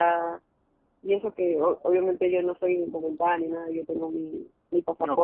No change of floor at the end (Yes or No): Yes